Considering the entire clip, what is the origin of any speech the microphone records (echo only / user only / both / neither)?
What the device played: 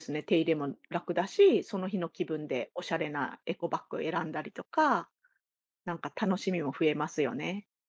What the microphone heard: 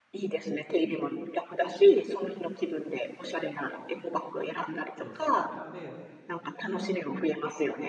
both